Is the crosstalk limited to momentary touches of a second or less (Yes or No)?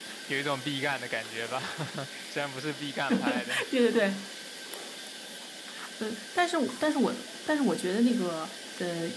Yes